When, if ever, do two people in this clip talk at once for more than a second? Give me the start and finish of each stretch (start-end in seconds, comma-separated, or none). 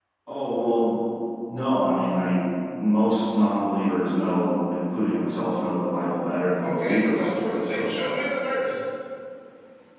6.6-8.0